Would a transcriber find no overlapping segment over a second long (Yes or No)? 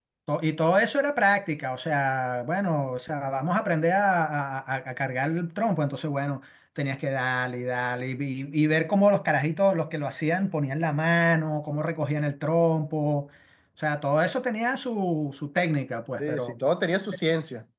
Yes